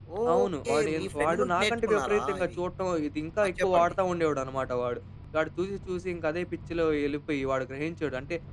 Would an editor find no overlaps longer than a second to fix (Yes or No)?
No